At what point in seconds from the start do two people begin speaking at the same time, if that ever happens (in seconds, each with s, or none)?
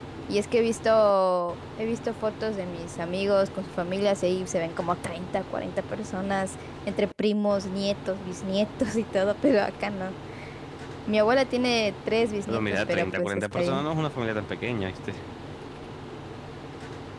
12.5 s